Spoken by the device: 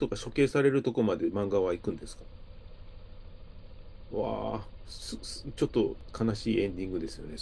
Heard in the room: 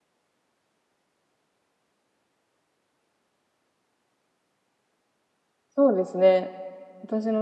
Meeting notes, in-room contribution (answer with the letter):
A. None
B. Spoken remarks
B